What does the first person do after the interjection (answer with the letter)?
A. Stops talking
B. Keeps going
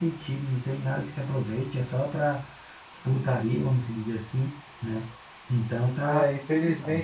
A